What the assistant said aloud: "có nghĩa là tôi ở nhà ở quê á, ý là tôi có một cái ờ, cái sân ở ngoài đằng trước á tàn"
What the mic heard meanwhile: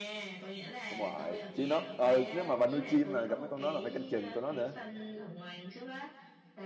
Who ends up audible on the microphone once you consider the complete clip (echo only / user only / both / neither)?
both